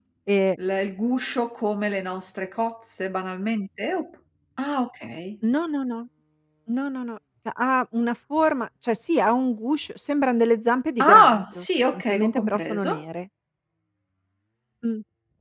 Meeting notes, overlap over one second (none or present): present